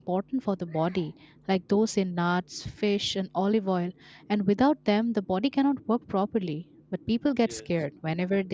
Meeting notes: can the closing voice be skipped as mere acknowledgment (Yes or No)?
Yes